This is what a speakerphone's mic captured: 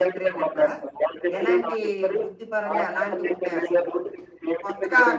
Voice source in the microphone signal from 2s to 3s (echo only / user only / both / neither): both